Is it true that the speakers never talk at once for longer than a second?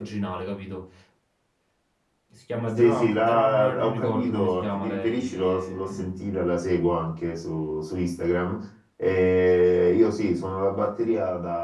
No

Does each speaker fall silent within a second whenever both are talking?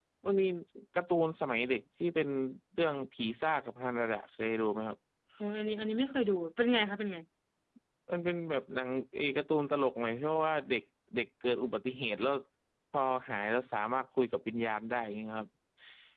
Yes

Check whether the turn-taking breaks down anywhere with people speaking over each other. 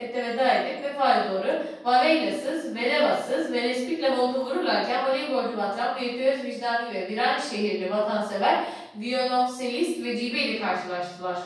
No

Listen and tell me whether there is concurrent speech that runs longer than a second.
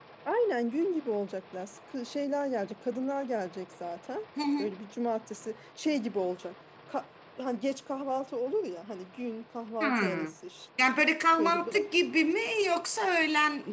No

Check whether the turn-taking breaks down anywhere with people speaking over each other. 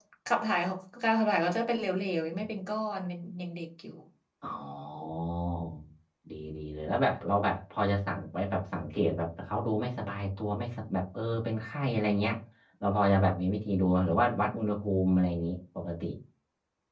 No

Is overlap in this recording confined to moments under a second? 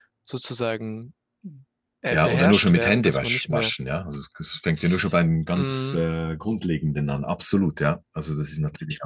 No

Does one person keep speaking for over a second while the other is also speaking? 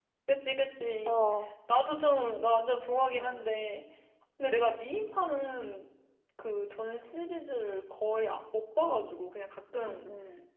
No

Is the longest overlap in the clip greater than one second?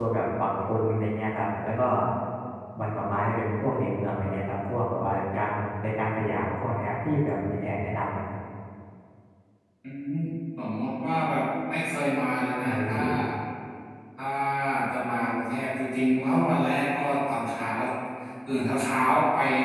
No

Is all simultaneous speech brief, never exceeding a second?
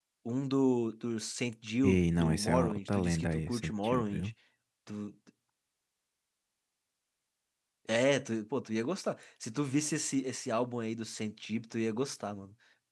No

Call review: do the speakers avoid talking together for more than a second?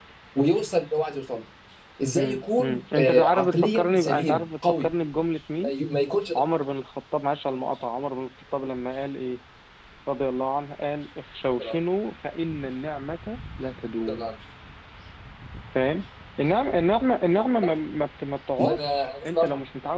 No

